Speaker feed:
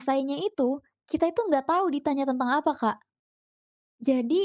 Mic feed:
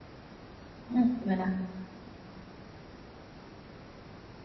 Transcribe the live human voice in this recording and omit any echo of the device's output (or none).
Mmm, gimana?